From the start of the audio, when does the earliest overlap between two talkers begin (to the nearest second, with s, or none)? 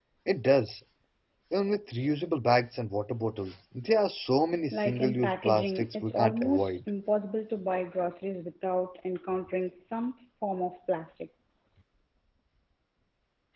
5 s